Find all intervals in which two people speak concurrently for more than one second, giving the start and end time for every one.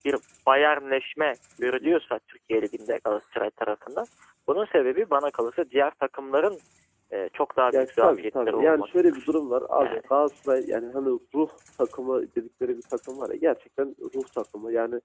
7.7-9.2

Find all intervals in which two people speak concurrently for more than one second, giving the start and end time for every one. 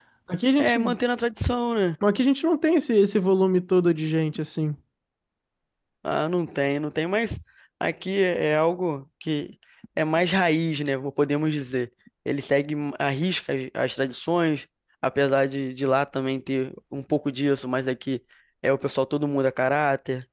none

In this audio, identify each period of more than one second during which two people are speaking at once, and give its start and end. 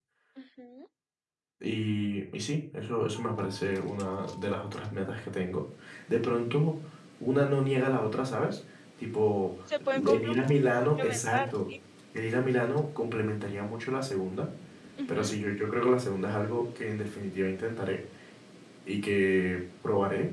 9.9-11.5

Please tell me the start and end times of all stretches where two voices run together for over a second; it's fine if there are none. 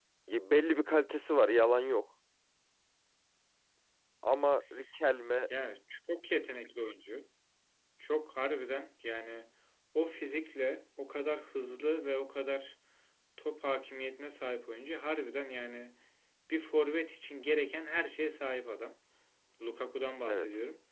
none

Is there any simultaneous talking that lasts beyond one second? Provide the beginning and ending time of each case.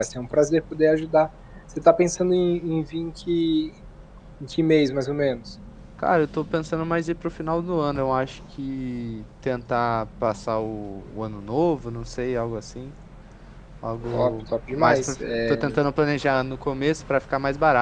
14.1-15.7

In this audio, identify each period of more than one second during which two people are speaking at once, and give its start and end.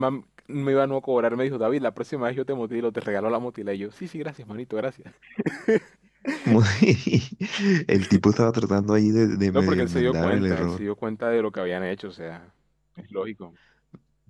9.5-10.8

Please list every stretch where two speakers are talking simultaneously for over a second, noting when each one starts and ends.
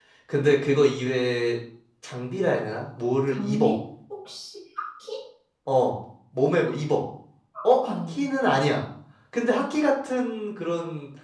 none

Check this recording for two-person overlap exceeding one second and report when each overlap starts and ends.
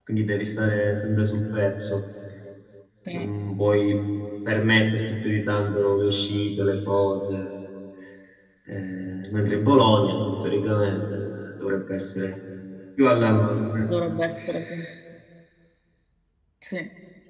none

